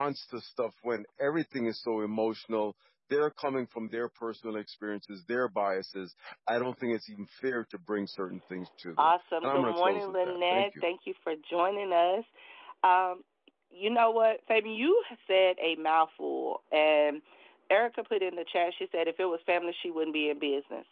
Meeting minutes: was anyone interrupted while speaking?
Yes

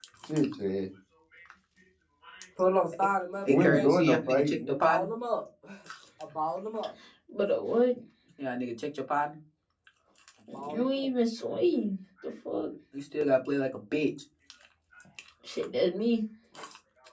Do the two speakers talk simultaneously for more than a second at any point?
Yes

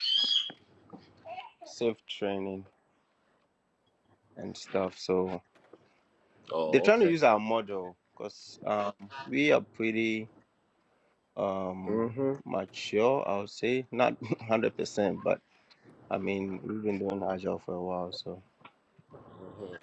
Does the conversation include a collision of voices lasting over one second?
No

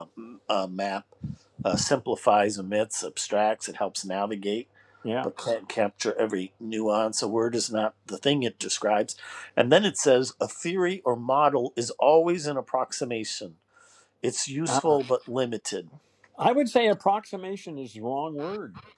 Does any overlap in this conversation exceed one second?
No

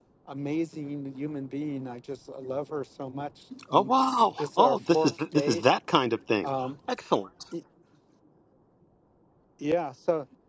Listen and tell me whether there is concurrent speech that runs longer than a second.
Yes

